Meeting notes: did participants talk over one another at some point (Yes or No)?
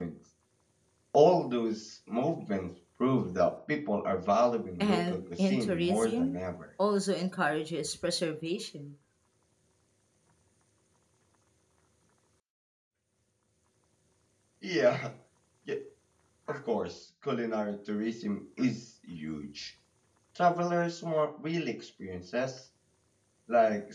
Yes